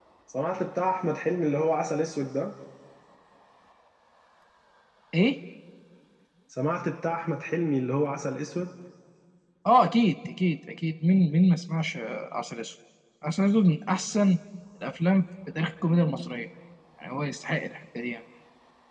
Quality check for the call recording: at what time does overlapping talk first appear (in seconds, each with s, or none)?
none